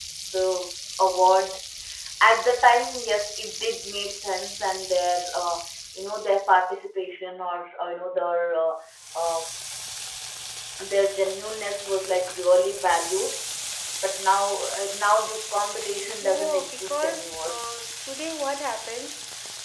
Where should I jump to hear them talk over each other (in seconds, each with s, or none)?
16.2 s